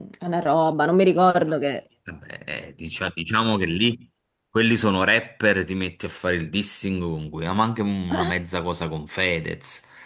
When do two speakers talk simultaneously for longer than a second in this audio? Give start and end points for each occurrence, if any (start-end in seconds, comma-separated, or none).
none